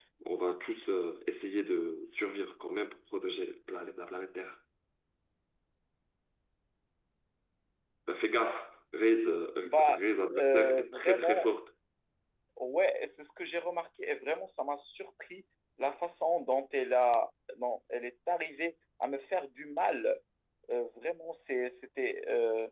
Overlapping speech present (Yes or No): Yes